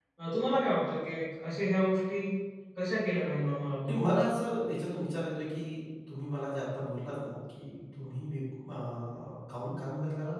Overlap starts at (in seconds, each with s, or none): none